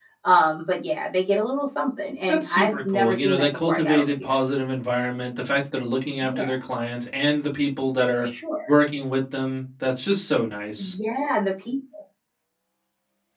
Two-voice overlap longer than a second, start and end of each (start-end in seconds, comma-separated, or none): 2.3-4.3